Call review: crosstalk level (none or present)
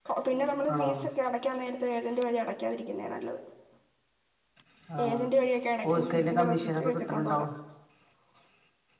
present